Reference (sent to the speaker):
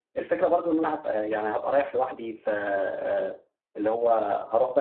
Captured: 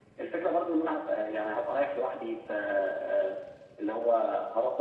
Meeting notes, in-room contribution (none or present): none